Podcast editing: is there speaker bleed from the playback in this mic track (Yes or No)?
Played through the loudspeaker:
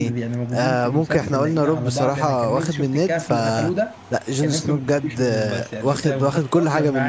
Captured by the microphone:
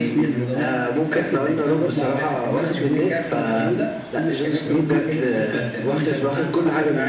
Yes